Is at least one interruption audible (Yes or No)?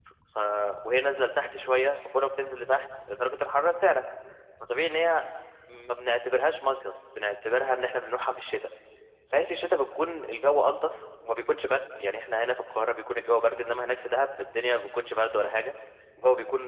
No